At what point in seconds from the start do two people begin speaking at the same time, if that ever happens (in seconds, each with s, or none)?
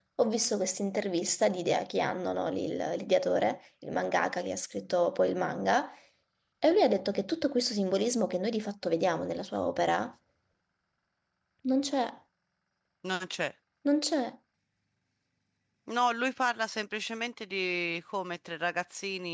none